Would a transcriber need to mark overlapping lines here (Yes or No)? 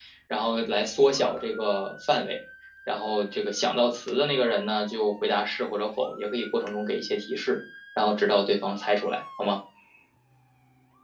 No